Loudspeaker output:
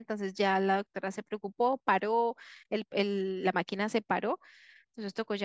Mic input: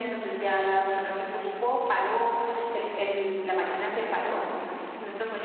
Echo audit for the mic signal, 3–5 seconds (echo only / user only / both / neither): echo only